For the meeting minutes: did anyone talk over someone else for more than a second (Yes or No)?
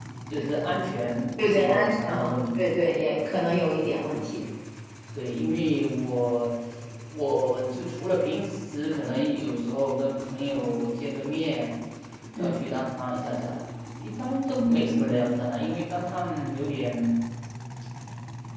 Yes